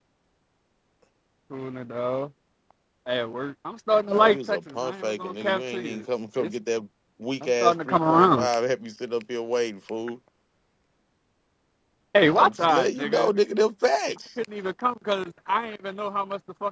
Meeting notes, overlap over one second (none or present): present